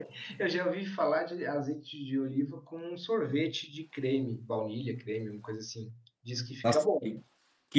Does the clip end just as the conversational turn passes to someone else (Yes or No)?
Yes